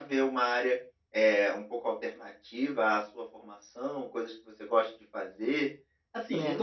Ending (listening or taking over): listening